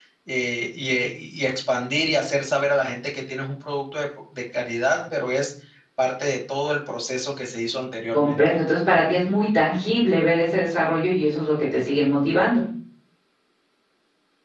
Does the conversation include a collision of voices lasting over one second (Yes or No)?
No